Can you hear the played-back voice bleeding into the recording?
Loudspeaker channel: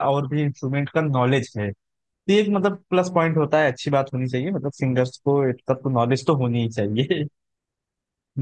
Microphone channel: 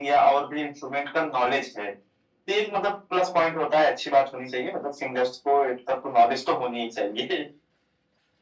Yes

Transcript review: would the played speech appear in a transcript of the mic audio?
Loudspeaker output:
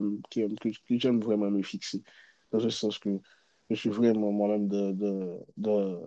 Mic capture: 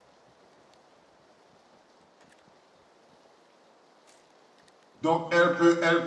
No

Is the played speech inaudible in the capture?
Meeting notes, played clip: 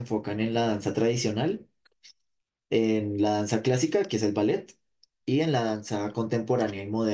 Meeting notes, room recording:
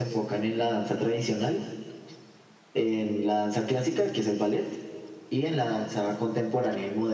No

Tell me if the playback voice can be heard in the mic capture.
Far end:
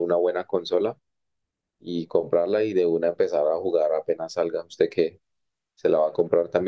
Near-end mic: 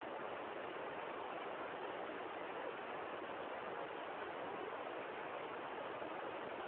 No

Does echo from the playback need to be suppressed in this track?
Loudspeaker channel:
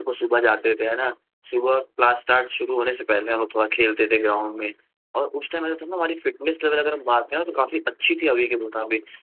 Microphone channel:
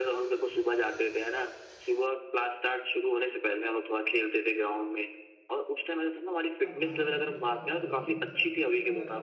Yes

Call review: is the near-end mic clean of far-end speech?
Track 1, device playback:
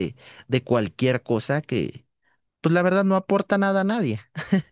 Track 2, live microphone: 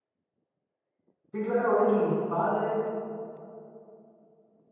Yes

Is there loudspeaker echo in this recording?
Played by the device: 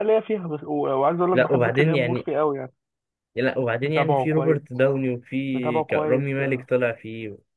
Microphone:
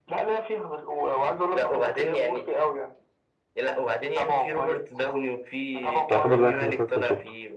Yes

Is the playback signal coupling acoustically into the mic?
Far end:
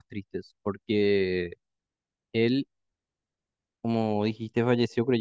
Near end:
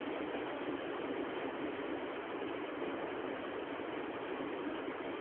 No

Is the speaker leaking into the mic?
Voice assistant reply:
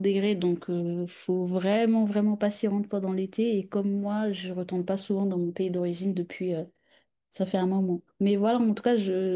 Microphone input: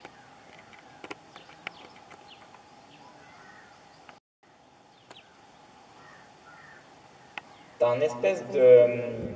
No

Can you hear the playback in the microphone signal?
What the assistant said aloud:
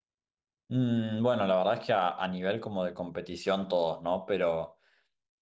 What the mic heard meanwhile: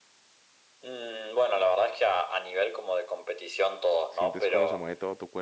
Yes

